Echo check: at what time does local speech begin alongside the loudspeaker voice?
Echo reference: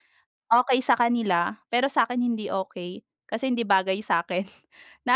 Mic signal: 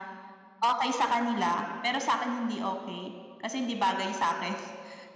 none

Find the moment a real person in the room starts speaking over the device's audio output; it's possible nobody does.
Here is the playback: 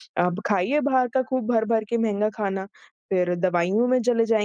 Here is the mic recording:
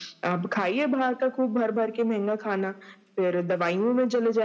none

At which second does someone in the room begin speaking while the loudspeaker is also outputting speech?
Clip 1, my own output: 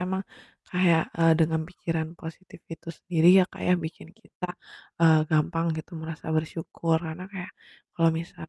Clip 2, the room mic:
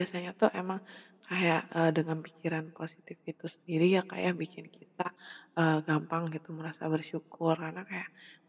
none

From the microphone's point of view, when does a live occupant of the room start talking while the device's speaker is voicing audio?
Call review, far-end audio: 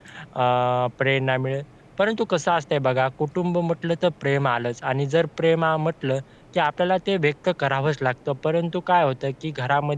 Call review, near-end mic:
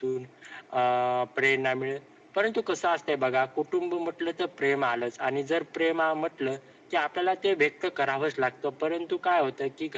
none

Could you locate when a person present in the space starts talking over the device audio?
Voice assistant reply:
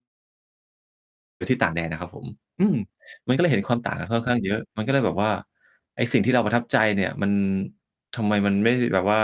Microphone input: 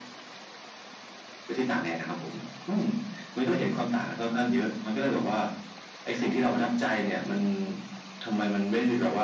none

